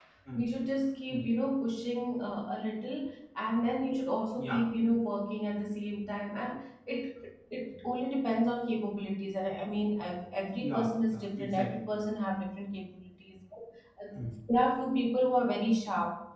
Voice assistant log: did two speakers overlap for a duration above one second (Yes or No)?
Yes